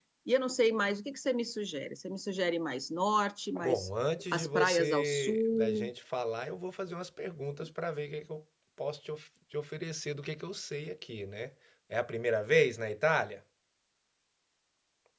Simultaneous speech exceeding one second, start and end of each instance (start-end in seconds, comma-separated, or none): 4.3-5.9